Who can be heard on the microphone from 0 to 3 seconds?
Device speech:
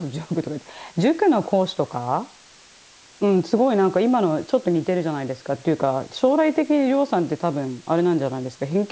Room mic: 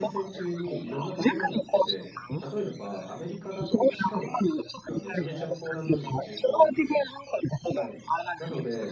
both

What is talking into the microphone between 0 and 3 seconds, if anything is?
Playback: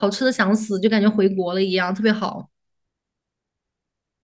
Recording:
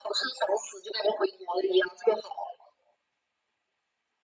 echo only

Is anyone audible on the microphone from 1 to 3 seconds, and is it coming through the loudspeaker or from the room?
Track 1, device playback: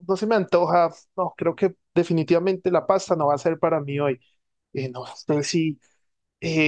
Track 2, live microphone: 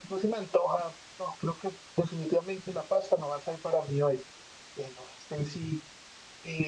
echo only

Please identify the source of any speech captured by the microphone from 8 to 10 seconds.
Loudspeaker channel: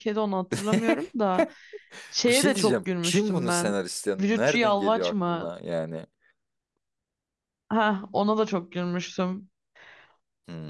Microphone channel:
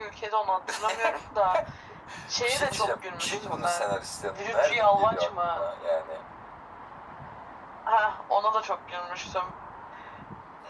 echo only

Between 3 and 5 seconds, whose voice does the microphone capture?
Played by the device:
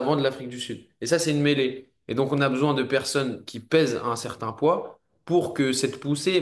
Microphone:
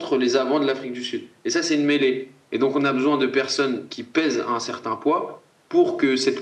echo only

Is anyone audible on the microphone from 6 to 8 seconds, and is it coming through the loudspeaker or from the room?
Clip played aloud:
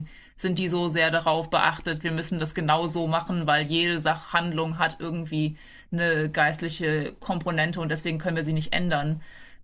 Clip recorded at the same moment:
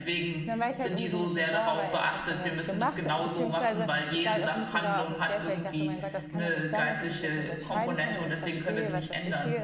both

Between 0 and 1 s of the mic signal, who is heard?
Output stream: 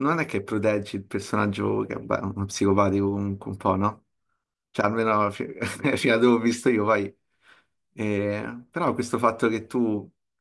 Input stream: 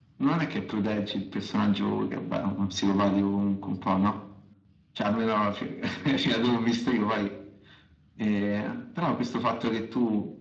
echo only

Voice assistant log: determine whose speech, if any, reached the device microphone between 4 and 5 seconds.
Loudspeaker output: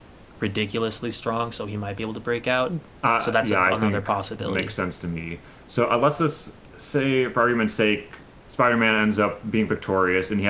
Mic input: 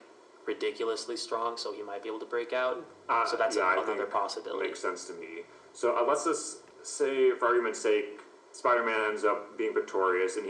echo only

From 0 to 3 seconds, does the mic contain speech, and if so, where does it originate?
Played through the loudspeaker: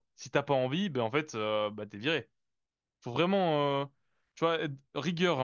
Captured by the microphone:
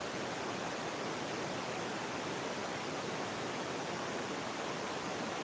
neither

